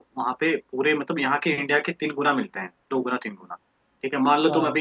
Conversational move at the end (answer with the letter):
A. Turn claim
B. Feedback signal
B